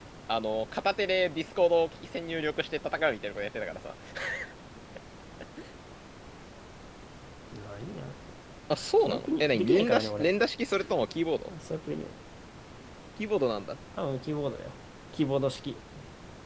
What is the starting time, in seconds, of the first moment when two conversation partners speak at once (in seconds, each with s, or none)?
9.1 s